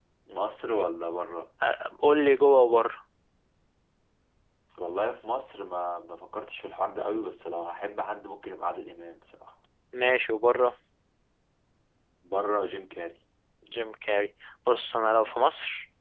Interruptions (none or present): none